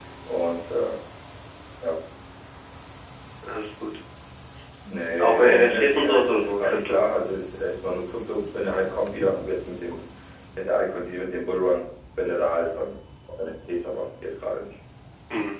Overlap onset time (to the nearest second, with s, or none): 5 s